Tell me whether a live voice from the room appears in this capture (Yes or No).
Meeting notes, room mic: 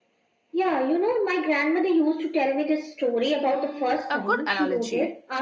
Yes